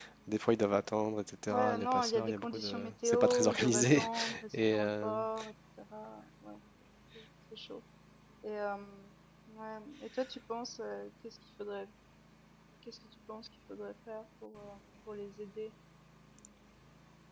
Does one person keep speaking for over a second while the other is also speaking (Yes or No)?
Yes